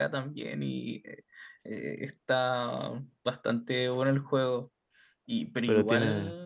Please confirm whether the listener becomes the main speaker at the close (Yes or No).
No